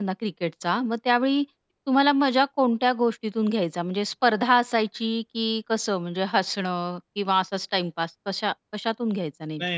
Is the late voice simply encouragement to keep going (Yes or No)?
No